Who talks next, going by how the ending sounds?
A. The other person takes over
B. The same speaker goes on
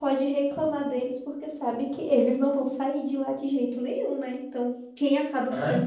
B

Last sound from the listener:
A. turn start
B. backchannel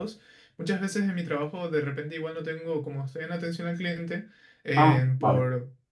B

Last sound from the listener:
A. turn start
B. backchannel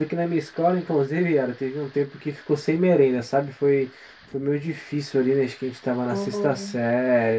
B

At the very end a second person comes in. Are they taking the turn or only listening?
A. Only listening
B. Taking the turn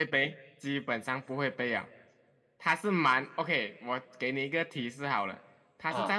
A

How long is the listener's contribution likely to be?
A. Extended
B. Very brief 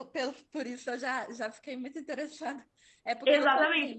A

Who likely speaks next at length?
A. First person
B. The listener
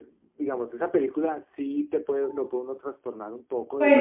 B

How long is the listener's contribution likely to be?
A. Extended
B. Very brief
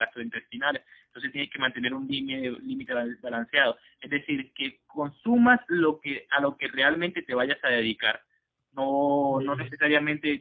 B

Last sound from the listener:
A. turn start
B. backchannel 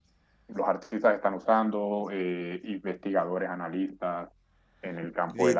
A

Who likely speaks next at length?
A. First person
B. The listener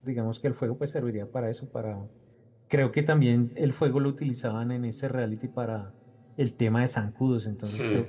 A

